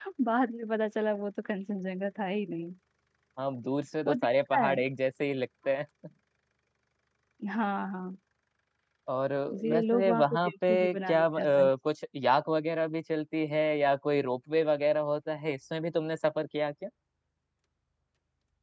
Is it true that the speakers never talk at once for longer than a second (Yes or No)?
No